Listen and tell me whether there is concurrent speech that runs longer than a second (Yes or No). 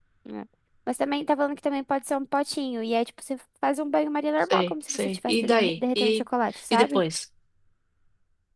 Yes